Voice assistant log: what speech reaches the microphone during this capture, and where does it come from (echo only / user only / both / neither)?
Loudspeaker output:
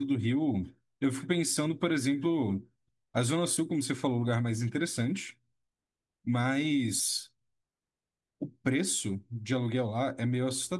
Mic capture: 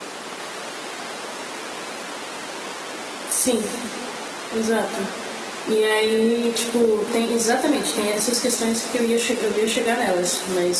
user only